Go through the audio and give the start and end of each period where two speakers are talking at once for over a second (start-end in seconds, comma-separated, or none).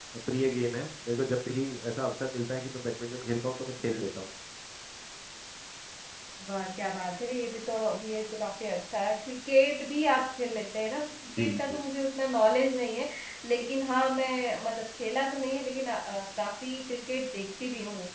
none